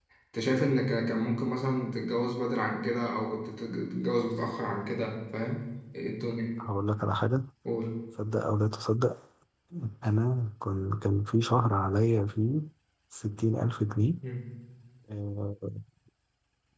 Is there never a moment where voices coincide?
Yes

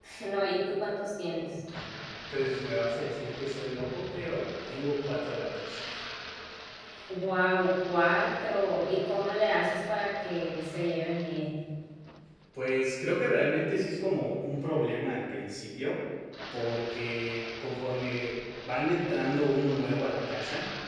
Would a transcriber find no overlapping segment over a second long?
Yes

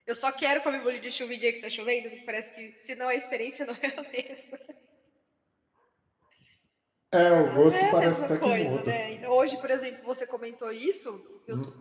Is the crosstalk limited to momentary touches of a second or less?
No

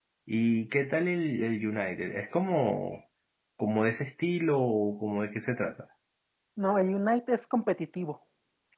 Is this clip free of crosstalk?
Yes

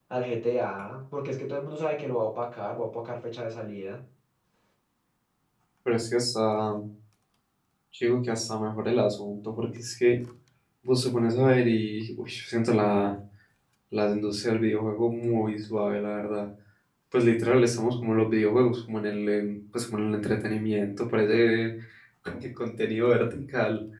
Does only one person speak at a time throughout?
Yes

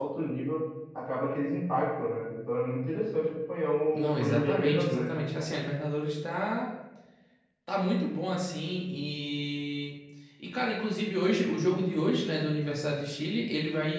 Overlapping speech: Yes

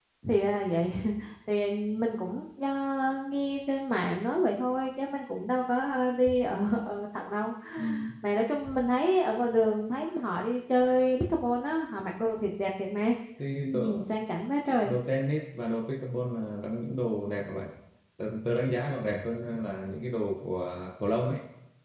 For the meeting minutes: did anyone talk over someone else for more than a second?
No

